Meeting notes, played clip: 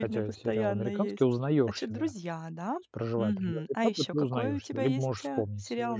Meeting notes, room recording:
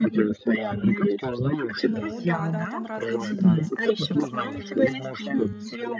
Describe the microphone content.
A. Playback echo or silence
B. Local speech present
B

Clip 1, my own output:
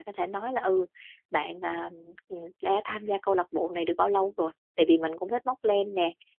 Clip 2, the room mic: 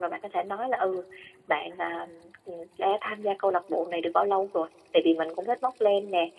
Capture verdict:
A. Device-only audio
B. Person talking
A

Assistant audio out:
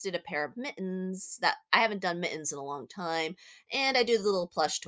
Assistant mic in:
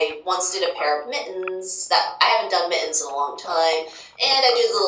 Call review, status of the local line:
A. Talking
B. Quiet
B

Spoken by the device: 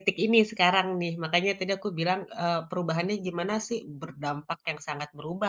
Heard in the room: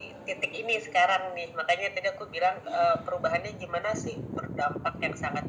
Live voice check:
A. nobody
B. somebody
A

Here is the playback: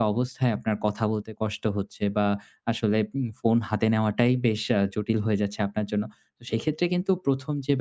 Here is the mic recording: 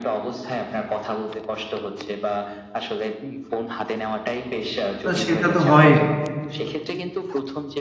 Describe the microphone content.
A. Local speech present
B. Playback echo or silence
A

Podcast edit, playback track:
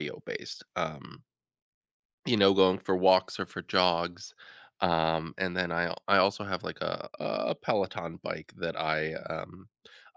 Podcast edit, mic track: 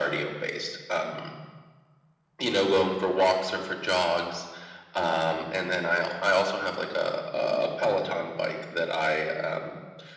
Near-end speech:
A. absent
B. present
A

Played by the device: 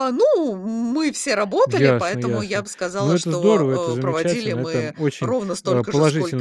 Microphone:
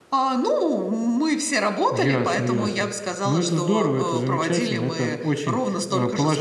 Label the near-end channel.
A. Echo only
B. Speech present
A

